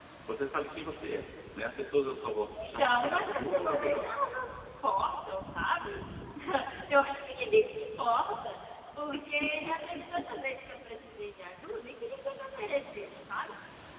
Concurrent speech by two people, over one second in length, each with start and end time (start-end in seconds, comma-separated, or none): 2.5-4.1